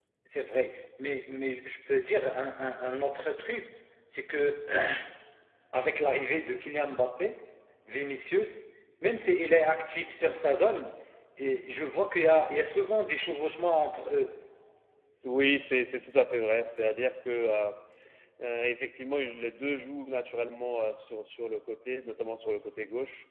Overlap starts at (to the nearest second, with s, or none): none